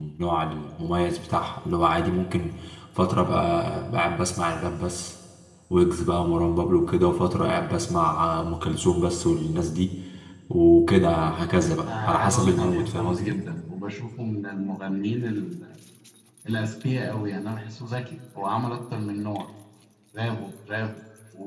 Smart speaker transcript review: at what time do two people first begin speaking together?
11.8 s

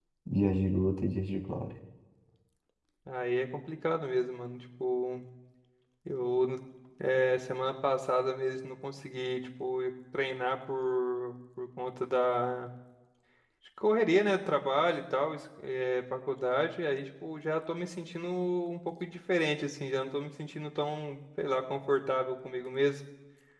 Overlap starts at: none

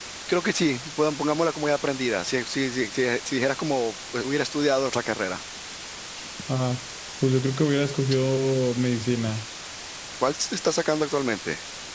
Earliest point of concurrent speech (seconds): none

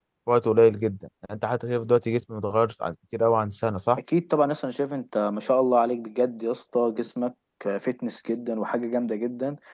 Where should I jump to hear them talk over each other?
none

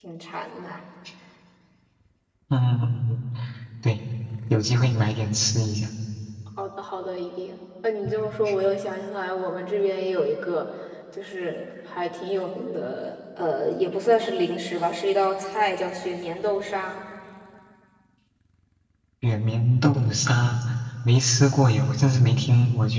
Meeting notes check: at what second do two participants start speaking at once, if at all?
none

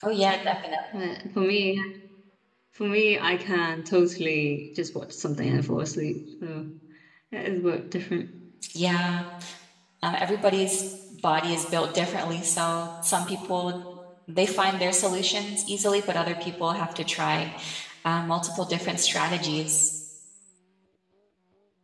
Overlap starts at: none

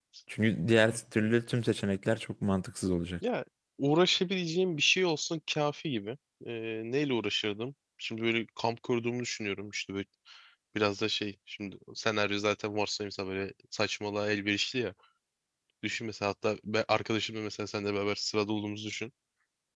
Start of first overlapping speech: none

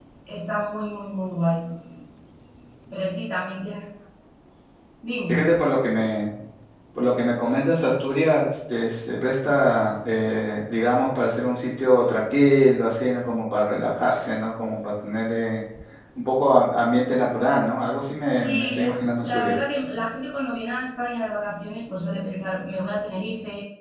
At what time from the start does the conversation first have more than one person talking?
18.3 s

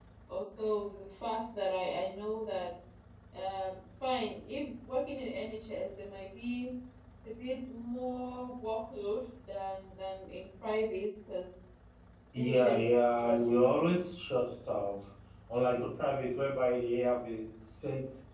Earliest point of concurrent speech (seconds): 12.3 s

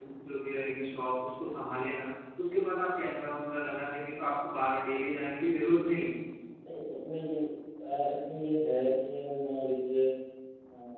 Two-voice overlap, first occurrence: none

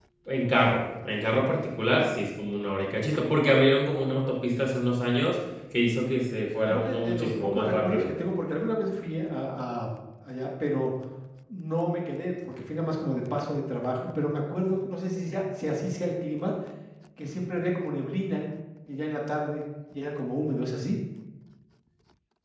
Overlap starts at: 6.7 s

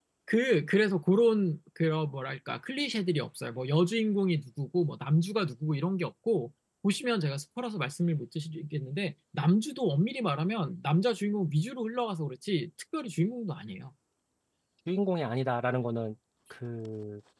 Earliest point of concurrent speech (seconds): none

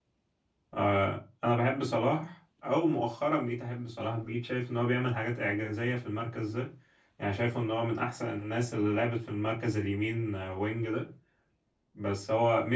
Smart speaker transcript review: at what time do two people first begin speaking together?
none

